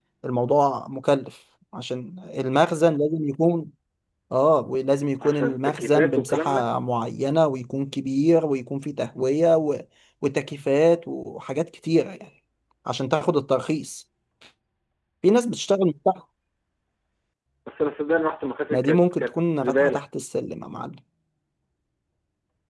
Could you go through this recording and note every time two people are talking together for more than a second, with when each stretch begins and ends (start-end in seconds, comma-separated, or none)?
5.2-6.7, 18.7-20.1